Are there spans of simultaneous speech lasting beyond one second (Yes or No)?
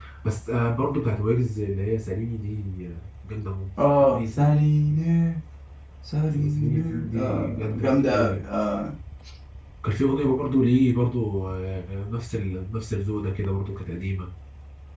Yes